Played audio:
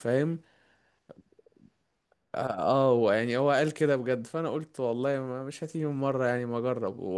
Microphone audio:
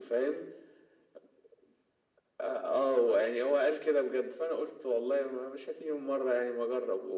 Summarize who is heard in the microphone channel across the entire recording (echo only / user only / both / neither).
echo only